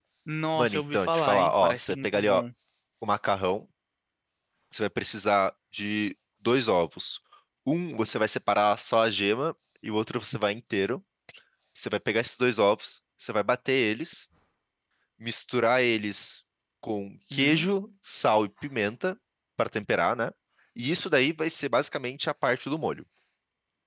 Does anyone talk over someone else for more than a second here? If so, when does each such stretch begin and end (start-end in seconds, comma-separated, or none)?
0.6-2.4